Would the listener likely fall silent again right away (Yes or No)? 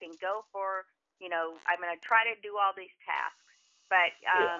Yes